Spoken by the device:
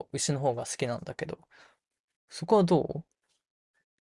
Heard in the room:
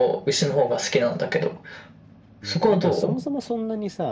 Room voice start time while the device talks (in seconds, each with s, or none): 2.4 s